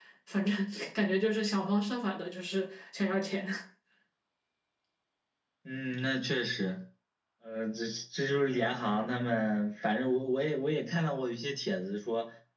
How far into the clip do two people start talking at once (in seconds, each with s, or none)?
none